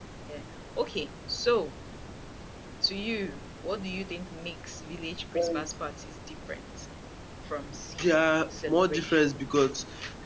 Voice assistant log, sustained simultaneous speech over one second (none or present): present